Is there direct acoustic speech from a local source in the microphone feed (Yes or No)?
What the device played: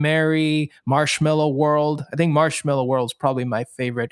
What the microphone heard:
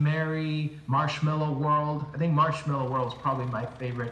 No